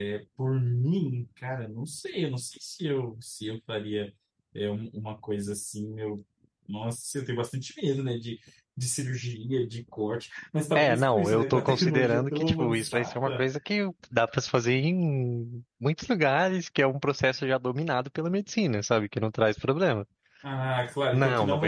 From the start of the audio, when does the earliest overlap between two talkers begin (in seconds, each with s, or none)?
10.8 s